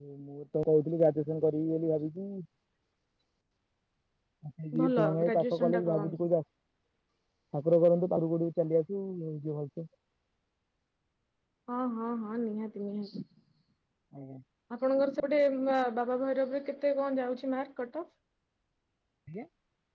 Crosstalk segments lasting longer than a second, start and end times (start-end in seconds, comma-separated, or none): 4.8-6.2